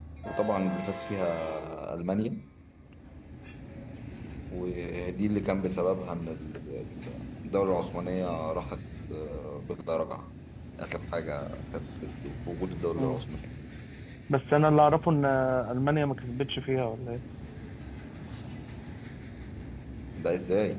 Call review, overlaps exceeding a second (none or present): none